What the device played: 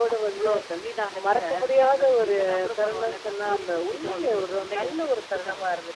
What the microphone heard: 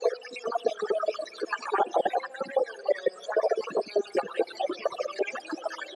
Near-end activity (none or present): none